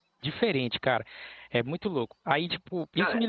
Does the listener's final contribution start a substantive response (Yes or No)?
No